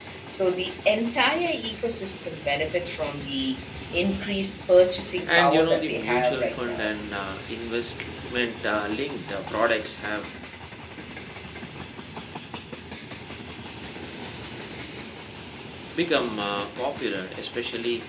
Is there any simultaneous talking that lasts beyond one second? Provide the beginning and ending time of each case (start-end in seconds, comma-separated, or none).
5.3-6.9